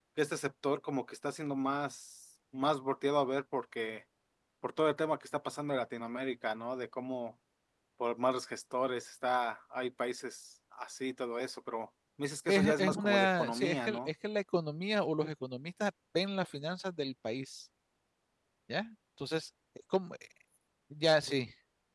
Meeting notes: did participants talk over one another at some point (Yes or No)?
Yes